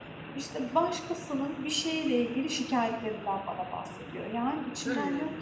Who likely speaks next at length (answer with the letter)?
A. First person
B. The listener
A